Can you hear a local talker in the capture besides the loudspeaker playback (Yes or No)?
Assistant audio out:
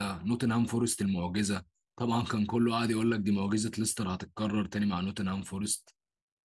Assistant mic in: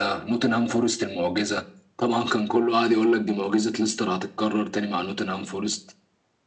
No